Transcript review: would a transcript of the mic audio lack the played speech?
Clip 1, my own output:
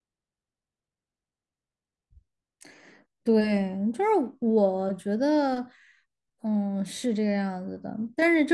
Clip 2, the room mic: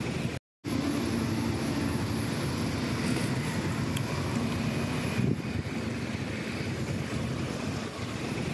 Yes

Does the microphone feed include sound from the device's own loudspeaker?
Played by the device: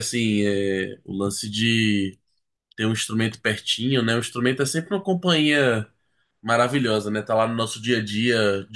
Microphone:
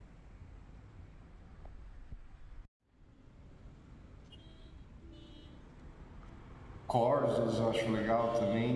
No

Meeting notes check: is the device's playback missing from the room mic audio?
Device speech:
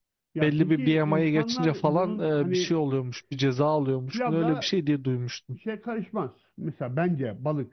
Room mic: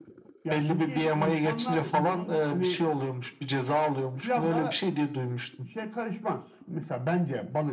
No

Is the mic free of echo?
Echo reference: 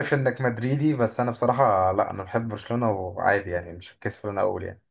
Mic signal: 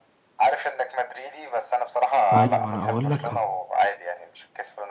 No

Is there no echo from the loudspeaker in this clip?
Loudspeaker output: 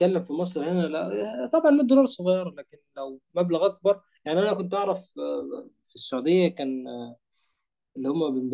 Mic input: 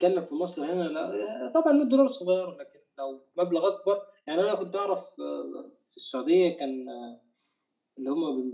No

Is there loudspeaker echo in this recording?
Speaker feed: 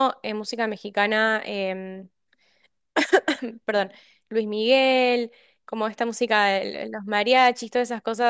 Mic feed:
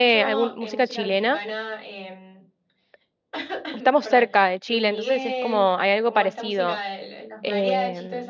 Yes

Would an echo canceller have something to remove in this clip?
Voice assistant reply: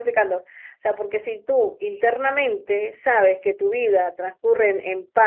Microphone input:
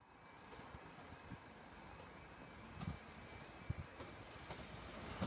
No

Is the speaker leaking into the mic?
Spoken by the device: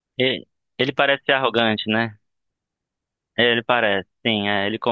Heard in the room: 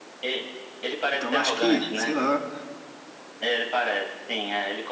Yes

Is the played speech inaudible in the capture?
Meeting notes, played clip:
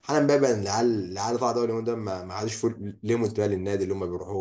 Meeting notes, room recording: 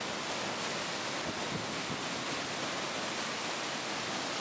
Yes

